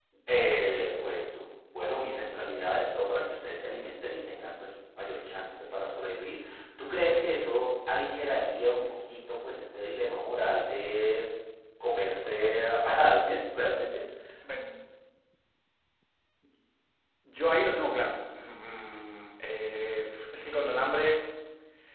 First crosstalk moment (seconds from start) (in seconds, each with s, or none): none